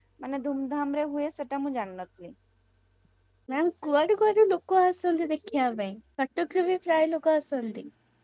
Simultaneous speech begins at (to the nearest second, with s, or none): none